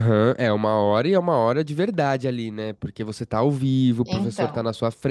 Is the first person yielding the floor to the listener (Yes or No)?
No